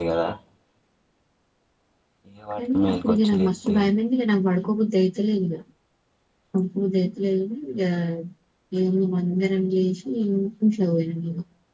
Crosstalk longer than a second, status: present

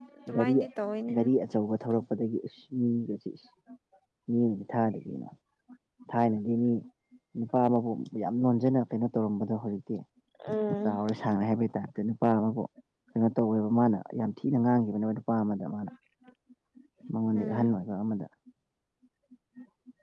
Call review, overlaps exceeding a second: none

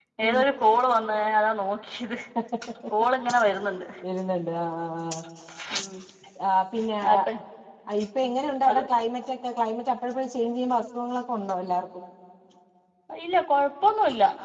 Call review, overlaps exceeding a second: none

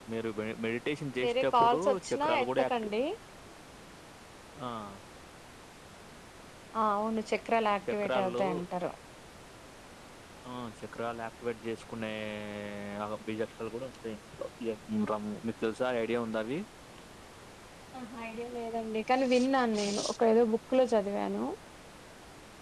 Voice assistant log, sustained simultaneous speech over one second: present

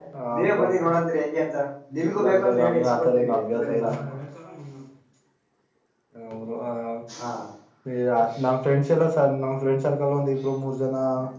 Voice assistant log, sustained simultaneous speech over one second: present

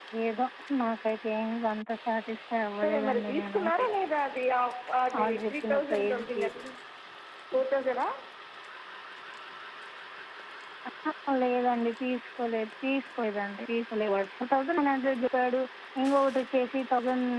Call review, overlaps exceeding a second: present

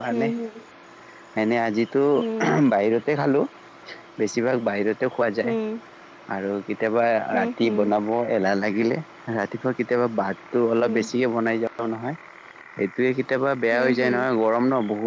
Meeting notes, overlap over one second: none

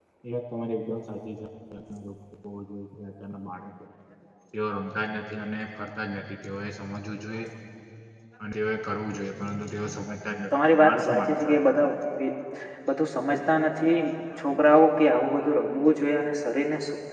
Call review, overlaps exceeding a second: present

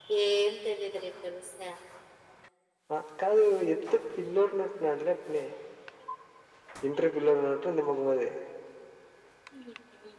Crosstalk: none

